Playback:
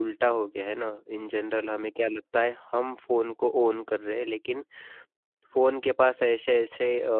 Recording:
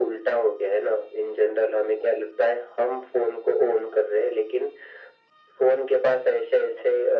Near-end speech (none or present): none